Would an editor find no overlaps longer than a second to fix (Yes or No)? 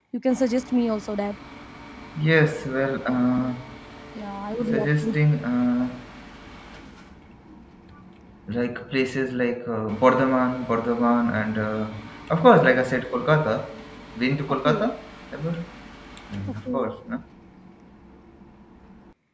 Yes